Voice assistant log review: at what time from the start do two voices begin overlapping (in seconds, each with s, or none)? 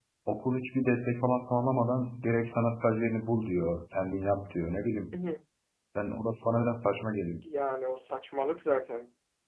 none